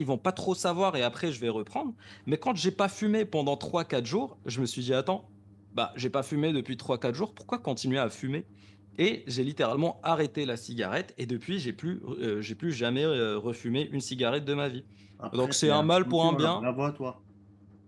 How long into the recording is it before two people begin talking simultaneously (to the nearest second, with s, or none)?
15 s